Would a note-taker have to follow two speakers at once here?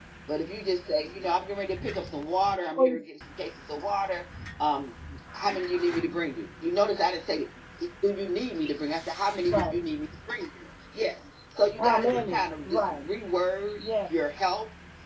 Yes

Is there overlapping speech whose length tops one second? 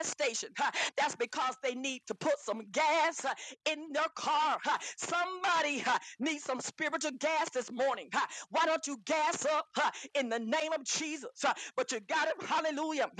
No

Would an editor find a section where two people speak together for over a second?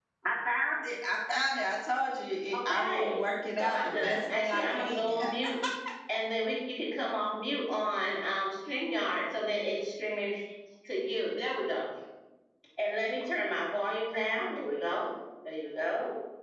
Yes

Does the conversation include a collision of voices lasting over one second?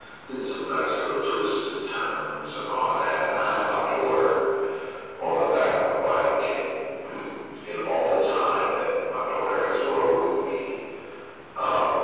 No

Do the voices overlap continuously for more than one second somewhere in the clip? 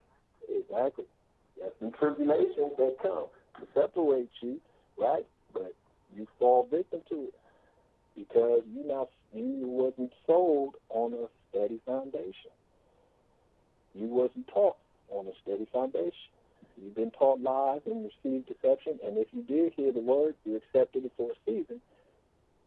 No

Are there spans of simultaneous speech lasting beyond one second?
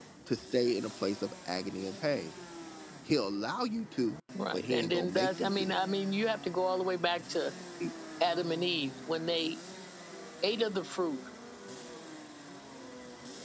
Yes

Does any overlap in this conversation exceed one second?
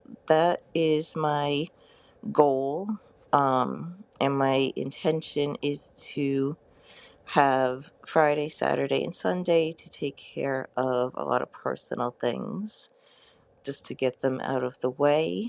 No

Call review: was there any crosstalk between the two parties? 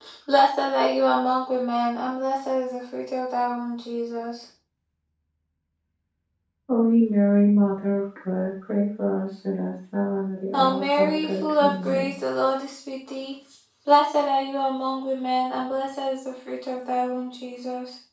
Yes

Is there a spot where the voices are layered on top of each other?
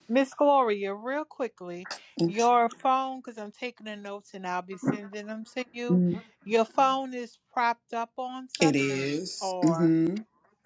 Yes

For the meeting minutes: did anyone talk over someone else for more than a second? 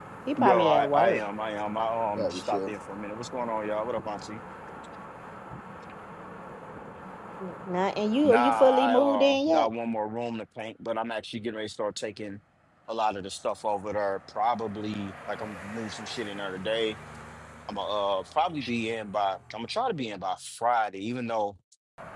Yes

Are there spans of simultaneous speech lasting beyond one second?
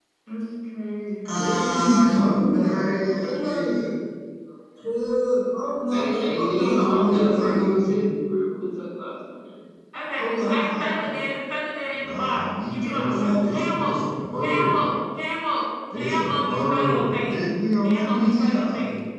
Yes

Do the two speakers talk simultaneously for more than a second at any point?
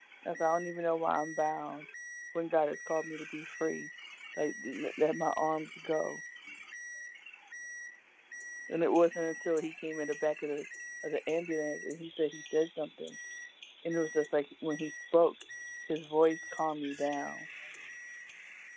No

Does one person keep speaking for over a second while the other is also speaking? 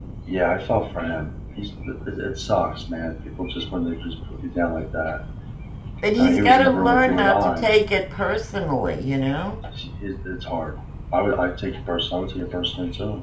Yes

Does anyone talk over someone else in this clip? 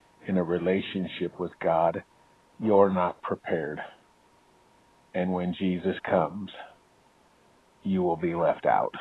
No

